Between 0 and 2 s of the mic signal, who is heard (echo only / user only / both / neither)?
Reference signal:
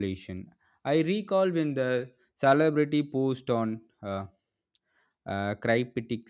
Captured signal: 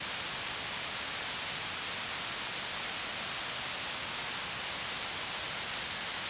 neither